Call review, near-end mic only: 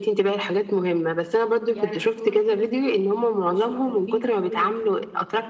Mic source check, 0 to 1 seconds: echo only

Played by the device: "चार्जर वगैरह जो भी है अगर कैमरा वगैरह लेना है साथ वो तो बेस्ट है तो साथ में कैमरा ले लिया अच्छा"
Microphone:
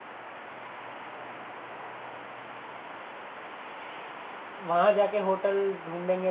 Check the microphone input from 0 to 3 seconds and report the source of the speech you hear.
neither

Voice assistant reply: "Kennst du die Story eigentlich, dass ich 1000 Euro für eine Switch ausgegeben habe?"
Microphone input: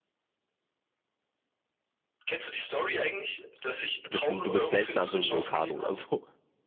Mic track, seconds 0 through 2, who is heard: neither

